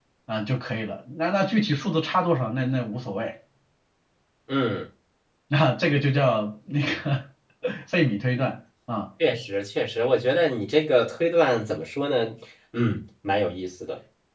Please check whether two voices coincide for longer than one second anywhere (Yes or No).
No